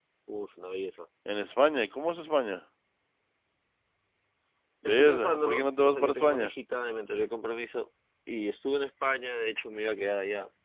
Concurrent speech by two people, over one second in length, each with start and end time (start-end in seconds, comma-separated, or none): 4.9-6.5